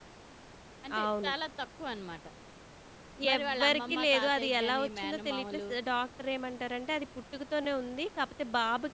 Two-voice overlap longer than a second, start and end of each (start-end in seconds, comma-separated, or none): 3.4-5.6